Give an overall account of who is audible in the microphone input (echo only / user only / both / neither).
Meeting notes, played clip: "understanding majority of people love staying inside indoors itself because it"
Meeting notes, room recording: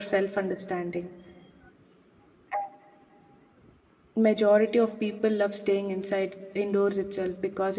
echo only